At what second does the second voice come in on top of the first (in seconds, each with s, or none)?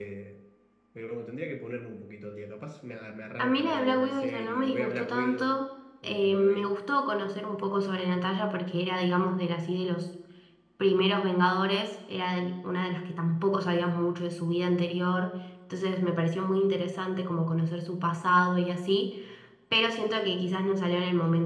3.4 s